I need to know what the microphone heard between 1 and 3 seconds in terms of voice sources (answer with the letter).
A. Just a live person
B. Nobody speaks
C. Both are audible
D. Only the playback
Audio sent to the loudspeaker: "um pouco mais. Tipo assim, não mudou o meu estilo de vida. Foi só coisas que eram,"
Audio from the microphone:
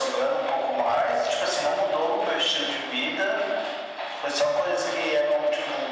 D